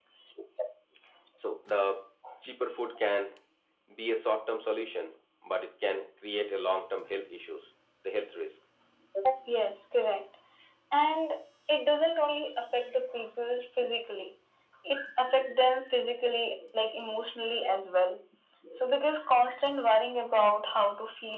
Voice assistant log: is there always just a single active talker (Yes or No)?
Yes